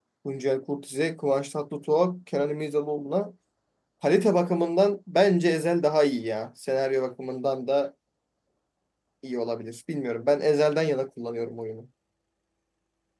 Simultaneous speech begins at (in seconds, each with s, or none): none